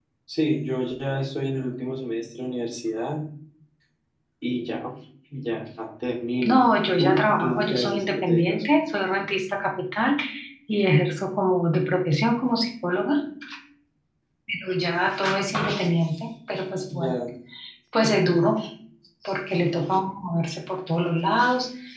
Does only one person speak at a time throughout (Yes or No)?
No